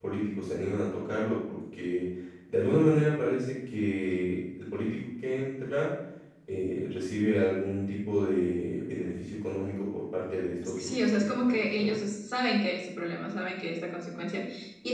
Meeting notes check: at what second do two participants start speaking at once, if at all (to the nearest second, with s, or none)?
11 s